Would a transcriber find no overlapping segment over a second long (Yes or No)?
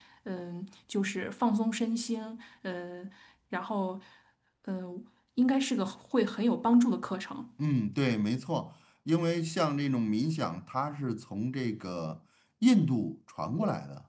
Yes